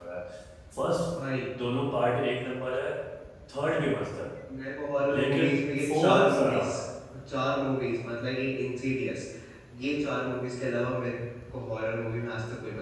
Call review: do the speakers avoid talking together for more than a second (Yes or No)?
No